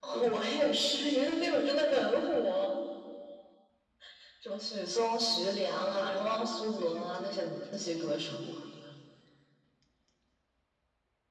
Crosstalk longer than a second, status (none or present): present